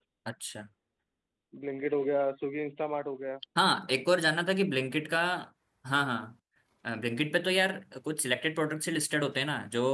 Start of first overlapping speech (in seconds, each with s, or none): none